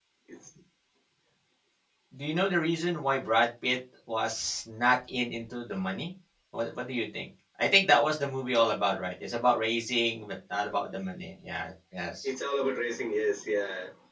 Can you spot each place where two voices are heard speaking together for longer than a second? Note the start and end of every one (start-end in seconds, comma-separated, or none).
none